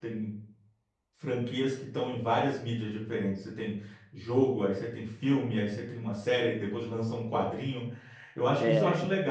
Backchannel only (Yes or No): Yes